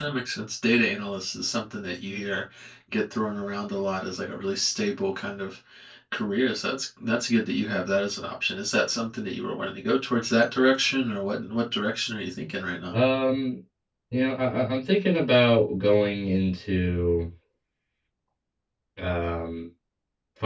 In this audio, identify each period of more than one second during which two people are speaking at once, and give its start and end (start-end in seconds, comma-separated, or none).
none